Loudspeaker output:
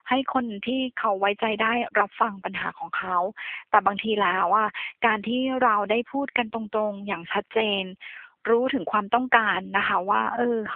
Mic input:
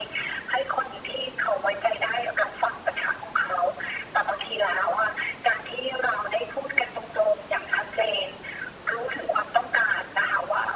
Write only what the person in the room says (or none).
none